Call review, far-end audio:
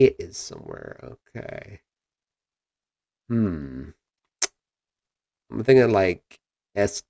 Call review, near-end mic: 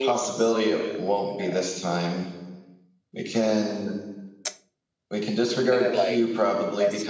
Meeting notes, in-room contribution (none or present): present